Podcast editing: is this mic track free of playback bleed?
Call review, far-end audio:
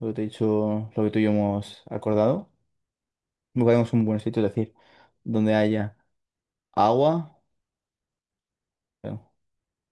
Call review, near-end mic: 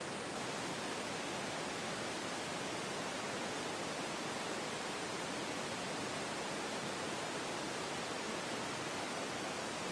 Yes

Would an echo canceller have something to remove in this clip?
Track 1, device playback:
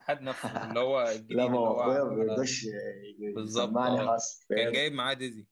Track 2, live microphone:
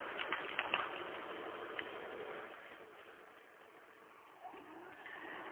No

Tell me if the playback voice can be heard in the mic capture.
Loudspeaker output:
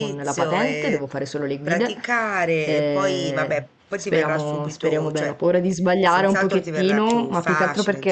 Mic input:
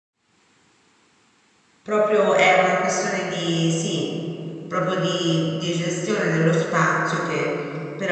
No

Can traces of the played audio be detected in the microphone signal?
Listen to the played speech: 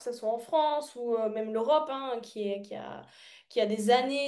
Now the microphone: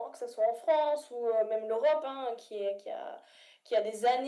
Yes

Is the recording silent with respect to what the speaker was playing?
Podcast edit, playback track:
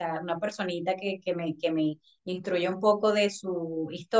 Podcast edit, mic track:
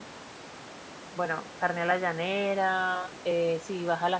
Yes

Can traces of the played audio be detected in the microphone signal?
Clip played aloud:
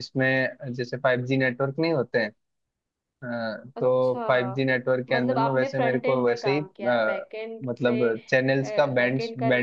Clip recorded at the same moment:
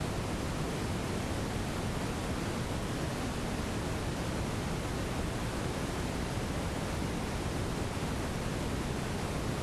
No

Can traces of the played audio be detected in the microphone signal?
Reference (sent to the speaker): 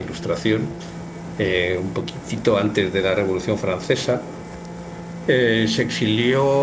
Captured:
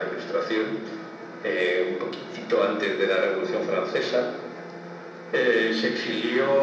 Yes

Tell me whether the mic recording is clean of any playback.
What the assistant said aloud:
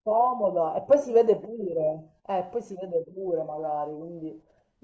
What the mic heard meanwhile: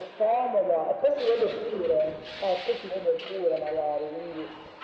No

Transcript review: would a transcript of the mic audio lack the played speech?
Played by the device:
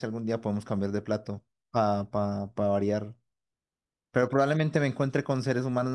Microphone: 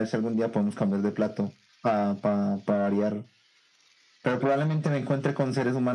No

